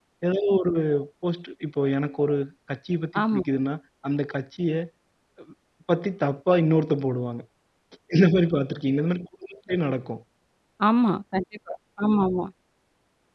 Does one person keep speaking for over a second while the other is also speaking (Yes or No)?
No